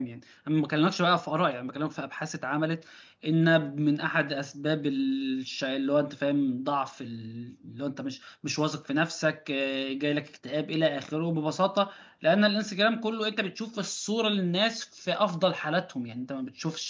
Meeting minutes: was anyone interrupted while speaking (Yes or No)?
No